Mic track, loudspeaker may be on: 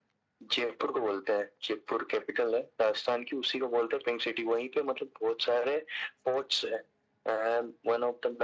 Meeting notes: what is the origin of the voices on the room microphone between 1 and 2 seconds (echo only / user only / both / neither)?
echo only